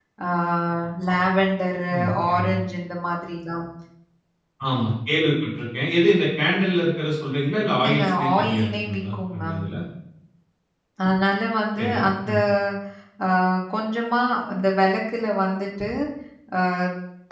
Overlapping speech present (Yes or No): Yes